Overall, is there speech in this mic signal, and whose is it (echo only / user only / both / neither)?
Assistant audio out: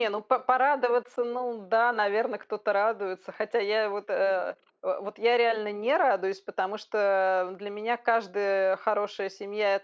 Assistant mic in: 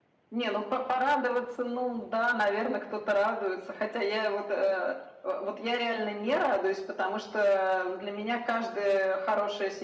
echo only